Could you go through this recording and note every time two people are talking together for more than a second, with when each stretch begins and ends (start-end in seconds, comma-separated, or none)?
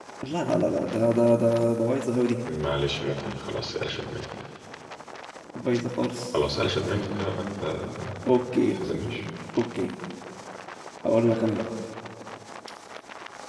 none